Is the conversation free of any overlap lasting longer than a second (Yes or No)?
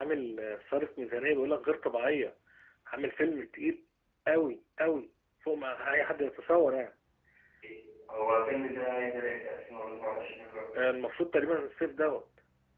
Yes